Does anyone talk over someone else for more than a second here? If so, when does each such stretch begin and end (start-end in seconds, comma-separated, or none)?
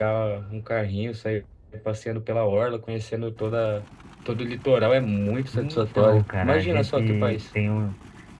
5.5-7.4